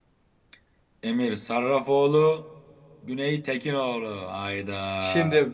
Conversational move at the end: taking over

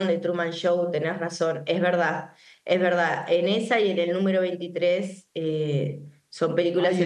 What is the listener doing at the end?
taking over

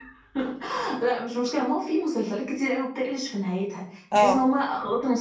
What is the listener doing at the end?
listening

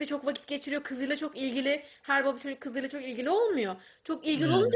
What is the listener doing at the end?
listening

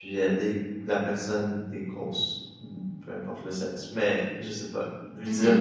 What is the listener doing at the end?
listening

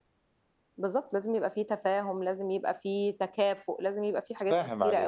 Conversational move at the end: taking over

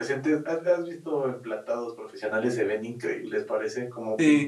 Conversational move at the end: taking over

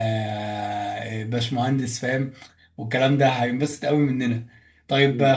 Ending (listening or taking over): listening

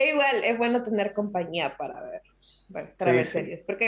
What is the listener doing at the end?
listening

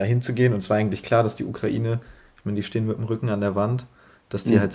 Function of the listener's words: listening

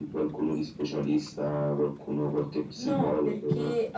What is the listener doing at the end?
taking over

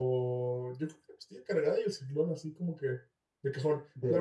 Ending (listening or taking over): listening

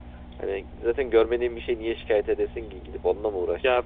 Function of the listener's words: taking over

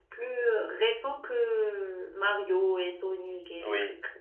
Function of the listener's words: taking over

